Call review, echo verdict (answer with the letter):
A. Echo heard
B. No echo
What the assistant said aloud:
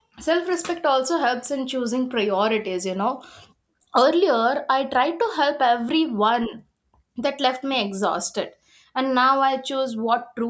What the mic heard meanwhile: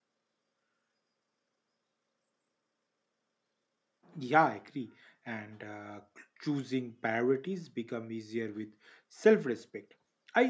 B